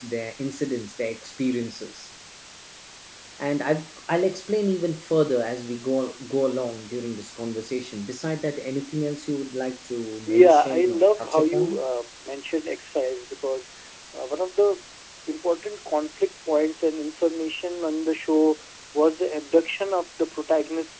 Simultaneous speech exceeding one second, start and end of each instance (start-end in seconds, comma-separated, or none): 10.3-11.8